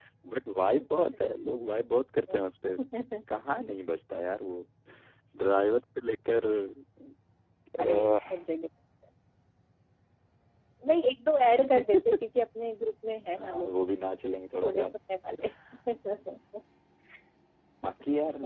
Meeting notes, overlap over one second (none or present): none